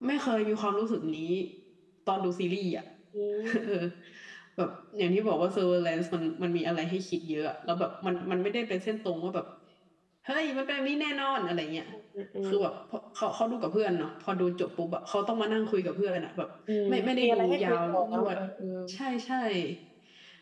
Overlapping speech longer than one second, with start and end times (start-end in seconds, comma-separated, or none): 16.9-18.4